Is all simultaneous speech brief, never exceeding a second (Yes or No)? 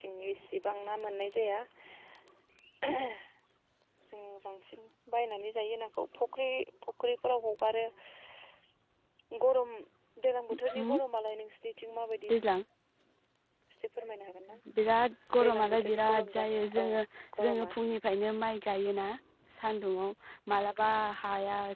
No